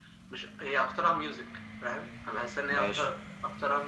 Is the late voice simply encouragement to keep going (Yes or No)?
Yes